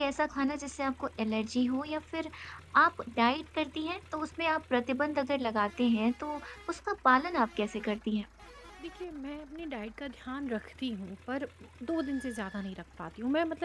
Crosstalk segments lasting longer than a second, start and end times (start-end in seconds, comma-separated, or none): none